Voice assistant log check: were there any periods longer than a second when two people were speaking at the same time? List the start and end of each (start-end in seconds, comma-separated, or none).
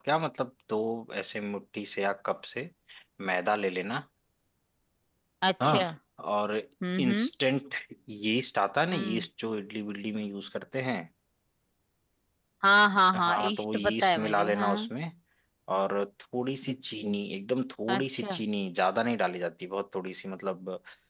13.2-14.9